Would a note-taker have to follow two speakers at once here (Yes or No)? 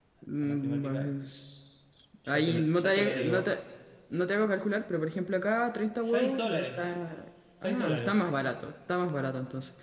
Yes